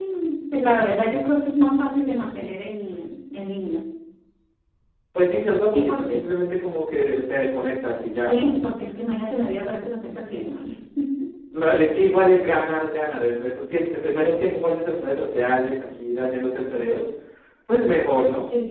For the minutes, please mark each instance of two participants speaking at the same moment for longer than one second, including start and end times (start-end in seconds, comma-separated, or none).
none